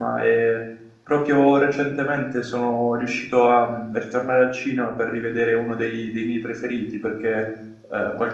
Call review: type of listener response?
listening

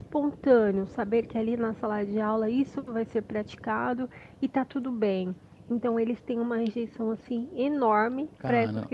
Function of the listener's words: listening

